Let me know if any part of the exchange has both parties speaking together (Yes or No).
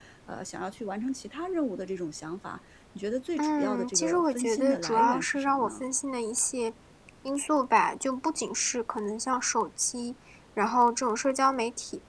Yes